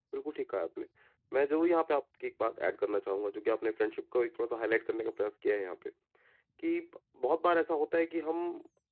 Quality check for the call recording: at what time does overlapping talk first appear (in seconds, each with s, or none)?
none